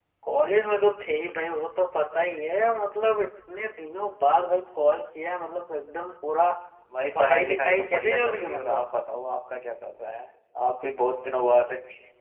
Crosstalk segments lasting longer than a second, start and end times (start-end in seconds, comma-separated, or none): 7.2-8.9